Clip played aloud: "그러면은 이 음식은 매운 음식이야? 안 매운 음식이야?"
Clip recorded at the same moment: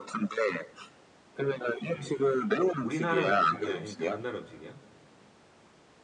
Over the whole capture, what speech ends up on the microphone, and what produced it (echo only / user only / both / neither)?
both